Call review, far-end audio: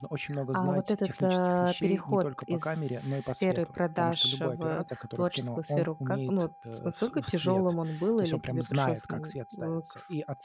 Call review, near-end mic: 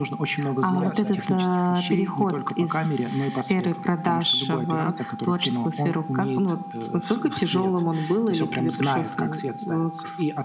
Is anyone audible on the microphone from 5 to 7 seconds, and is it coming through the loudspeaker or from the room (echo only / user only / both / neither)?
echo only